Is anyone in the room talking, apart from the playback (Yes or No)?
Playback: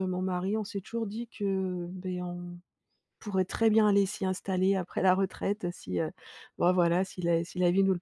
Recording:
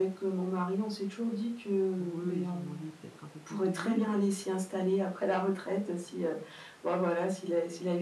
Yes